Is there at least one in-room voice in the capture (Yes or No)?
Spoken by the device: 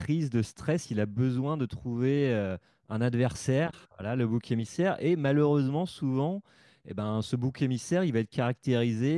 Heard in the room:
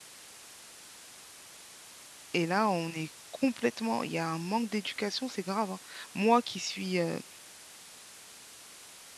Yes